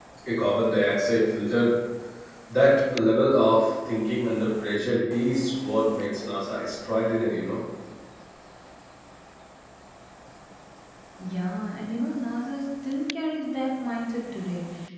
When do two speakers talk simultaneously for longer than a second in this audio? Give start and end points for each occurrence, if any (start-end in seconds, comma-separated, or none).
none